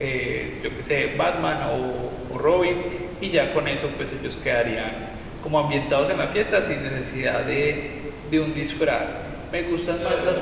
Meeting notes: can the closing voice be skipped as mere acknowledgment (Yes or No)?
Yes